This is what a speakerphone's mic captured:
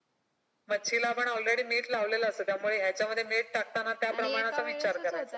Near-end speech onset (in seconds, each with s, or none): 4.1 s